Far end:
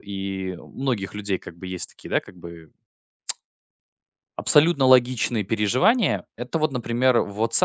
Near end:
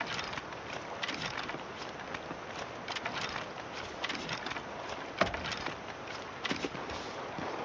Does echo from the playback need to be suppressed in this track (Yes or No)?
No